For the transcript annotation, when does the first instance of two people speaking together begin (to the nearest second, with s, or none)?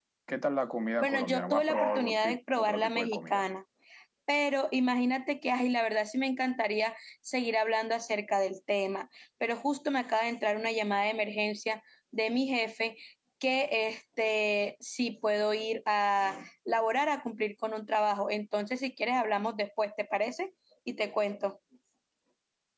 1 s